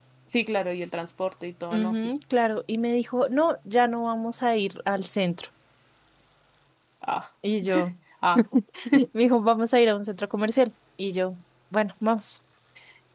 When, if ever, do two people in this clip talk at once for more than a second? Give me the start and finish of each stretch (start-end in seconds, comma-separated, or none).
none